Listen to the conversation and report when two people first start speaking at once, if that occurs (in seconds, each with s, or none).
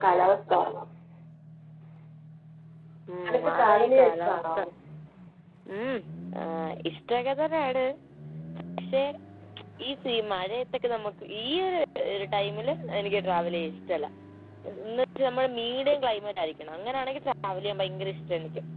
3.3 s